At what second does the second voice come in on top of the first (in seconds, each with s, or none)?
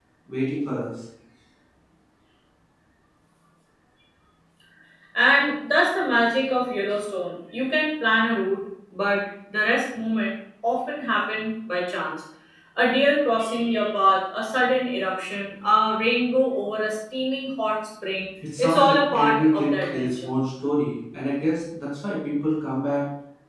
18.4 s